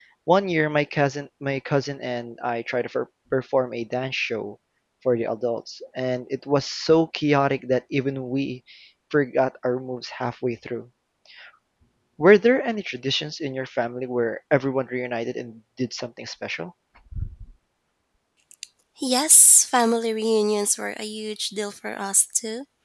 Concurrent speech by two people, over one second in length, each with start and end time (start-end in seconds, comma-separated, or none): none